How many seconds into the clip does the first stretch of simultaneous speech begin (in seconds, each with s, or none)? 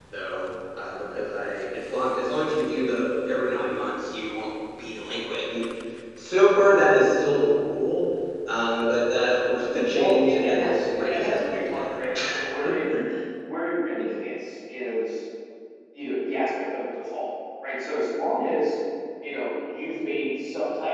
9.9 s